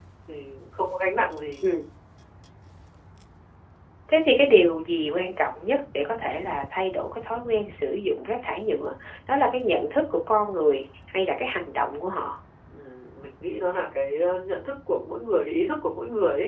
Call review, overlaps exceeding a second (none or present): none